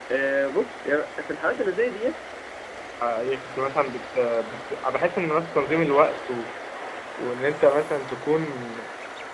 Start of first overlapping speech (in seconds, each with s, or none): none